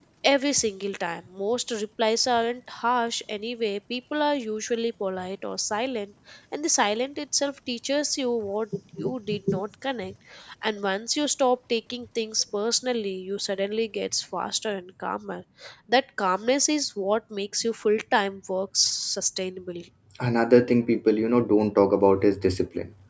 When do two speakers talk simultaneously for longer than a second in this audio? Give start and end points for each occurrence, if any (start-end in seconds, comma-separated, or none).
none